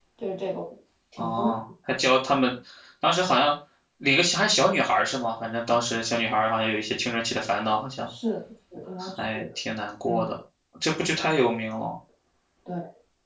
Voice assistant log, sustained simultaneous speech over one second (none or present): none